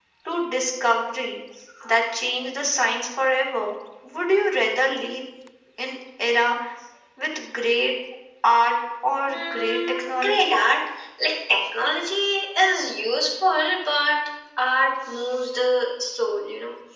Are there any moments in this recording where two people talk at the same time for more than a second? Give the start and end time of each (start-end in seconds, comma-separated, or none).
9.3-10.5